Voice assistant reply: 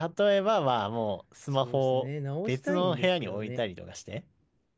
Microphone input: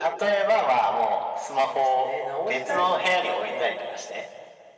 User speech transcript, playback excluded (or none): none